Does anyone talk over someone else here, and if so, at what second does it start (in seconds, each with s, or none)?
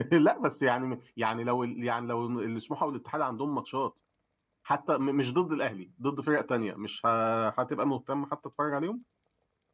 none